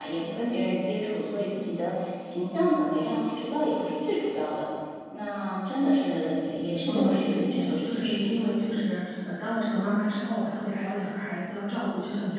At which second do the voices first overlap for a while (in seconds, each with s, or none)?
6.9 s